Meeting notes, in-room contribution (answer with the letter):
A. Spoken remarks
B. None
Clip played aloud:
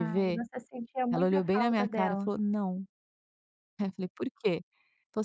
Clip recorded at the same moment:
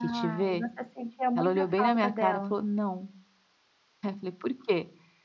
B